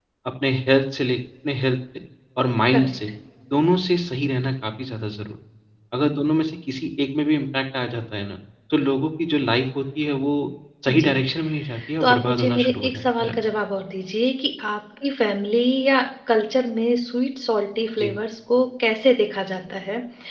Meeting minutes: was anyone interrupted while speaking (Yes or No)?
Yes